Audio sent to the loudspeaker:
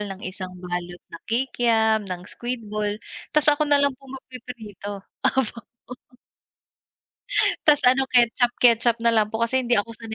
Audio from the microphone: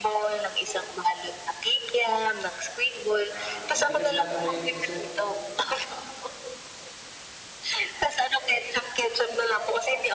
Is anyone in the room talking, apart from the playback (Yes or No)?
Yes